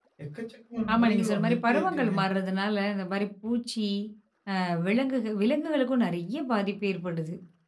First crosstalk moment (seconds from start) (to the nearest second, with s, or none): 1 s